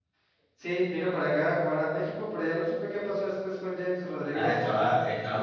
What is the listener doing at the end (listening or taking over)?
taking over